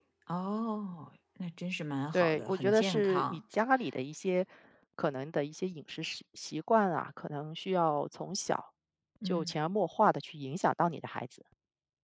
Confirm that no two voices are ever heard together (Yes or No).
No